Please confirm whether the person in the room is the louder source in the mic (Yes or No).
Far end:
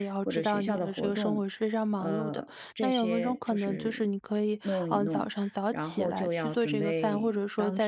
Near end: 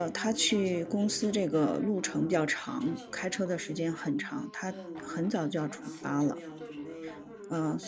Yes